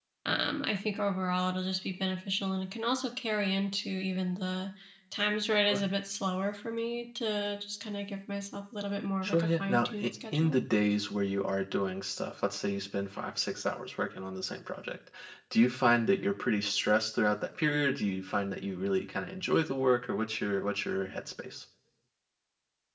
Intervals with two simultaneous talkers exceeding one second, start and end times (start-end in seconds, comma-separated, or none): 9.2-10.6